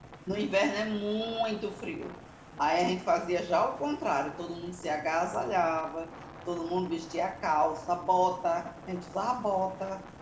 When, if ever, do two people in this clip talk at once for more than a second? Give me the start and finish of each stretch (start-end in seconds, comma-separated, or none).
none